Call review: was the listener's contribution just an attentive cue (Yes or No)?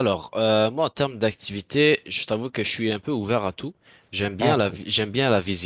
Yes